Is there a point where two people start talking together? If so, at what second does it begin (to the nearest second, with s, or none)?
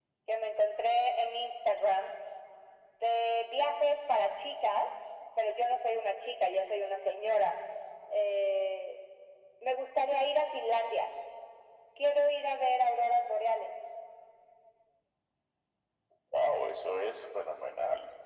none